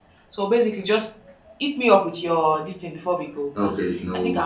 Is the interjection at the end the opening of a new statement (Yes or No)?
Yes